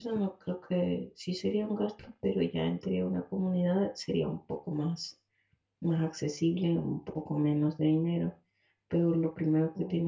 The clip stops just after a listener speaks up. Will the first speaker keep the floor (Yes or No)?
Yes